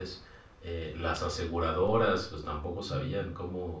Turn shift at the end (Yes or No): No